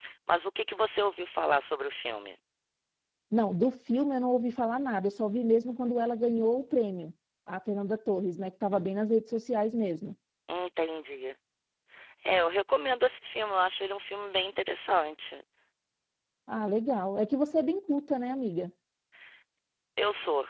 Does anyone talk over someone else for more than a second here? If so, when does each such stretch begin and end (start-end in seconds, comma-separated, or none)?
none